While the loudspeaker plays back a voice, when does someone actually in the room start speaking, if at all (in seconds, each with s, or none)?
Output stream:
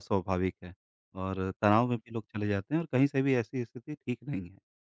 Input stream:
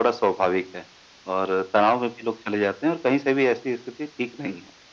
none